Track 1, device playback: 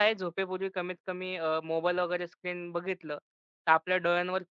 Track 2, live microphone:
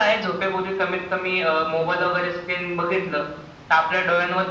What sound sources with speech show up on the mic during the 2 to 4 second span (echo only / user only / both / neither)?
echo only